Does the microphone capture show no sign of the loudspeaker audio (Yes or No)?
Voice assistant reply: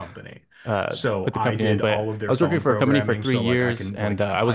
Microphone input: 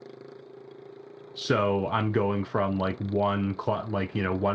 Yes